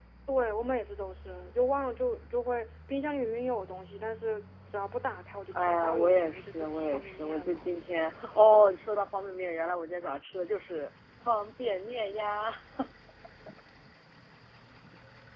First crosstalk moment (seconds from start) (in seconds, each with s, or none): 5.5 s